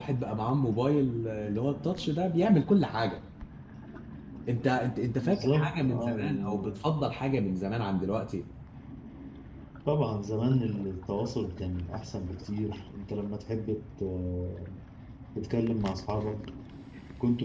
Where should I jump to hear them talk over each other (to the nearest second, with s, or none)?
5 s